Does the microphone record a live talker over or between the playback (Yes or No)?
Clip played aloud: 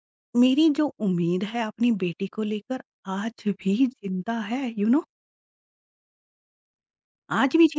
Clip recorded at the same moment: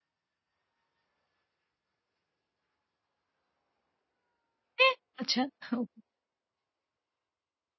Yes